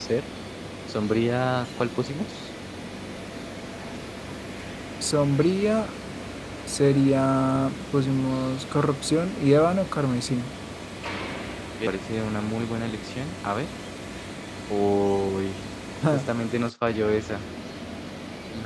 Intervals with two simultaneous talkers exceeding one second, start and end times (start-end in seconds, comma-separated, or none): none